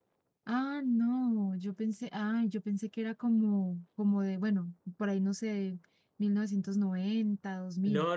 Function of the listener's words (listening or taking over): taking over